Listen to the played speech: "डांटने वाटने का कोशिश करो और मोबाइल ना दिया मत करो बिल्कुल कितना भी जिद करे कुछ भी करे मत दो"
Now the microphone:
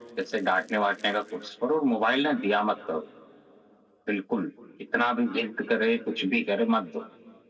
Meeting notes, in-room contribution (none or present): none